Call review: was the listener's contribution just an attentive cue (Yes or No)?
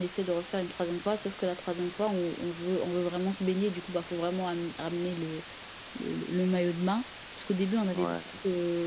Yes